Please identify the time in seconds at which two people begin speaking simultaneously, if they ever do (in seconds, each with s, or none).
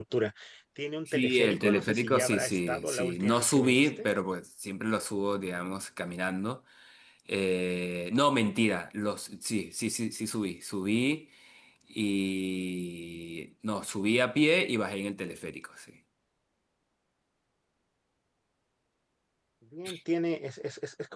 1.1 s